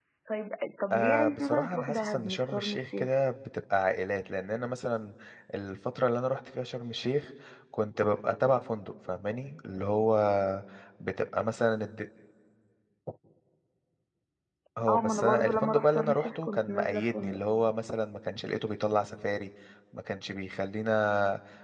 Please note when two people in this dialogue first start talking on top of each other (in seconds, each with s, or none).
0.9 s